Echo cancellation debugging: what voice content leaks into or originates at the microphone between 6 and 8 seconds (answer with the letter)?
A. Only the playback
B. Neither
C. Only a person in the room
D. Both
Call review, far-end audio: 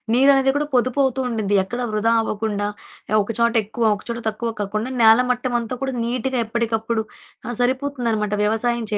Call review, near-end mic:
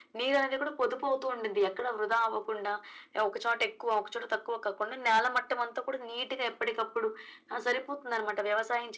A